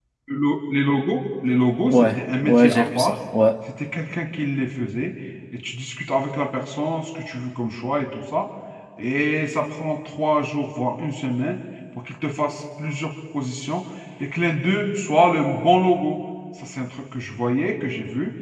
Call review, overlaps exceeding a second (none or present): present